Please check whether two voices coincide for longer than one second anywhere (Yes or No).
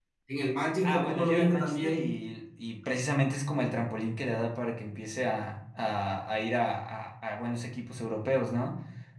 Yes